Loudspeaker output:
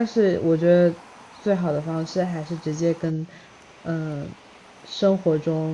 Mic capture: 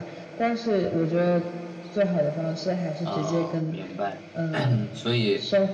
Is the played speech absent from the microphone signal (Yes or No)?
No